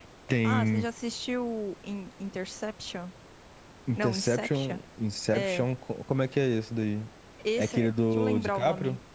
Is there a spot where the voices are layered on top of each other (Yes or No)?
Yes